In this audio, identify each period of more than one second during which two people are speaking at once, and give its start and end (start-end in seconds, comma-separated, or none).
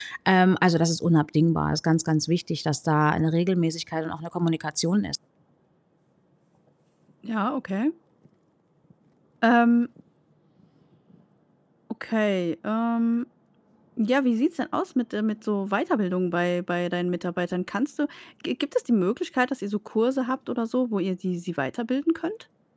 none